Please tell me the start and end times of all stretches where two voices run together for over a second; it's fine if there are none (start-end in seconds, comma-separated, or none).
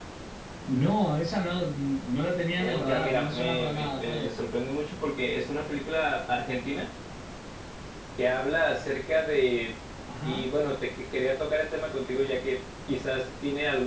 2.6-4.4